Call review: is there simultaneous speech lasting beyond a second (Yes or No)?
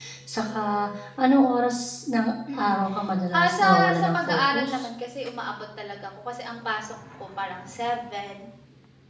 Yes